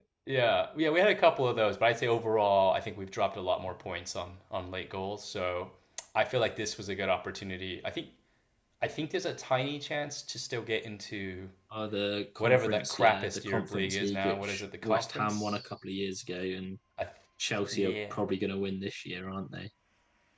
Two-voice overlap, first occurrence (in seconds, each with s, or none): 12.4 s